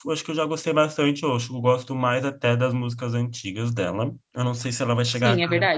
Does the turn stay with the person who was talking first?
No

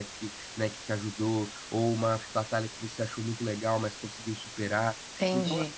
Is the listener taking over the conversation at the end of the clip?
Yes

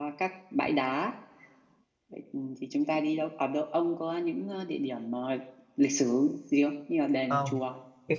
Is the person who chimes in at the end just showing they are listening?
No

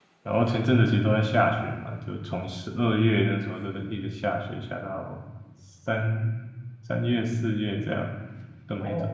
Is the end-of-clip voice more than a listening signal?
Yes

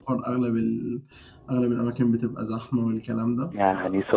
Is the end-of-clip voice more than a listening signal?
Yes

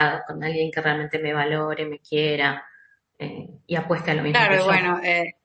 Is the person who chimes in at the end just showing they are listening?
No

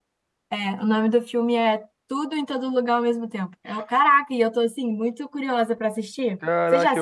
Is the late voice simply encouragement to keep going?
No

